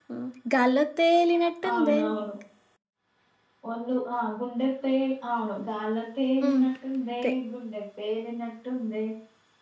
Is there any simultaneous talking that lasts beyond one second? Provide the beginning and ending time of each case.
none

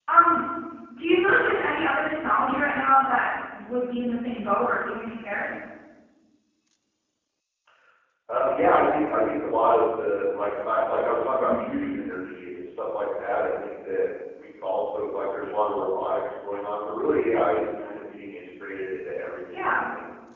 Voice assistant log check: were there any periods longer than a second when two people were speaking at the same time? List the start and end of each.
none

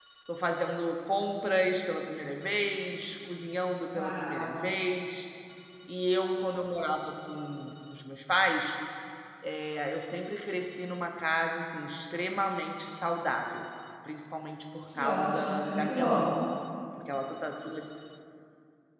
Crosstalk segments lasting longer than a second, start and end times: 15.0-16.3

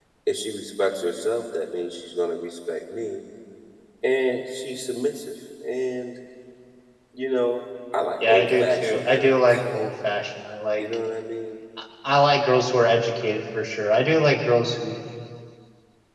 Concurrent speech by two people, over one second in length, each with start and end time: 8.3-9.6

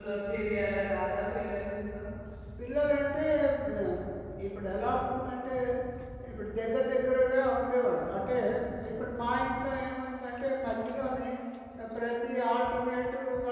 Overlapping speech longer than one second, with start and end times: none

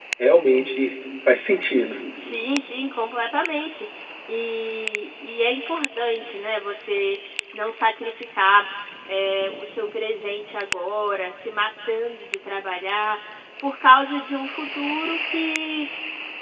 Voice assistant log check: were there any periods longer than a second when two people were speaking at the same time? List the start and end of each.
none

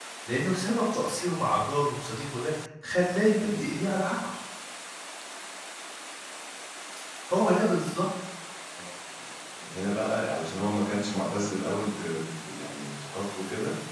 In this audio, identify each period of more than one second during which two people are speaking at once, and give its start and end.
none

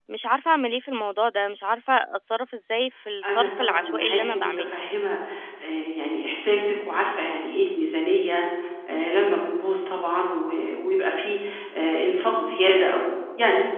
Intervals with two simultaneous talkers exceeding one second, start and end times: 3.2-4.7

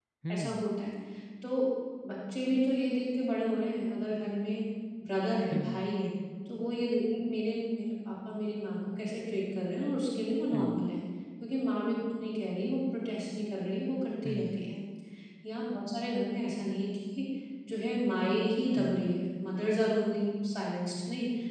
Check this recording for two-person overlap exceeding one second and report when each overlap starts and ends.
none

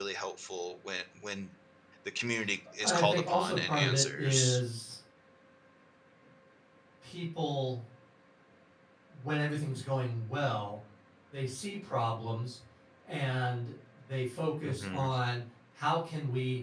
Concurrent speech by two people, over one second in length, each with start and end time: 2.8-4.6

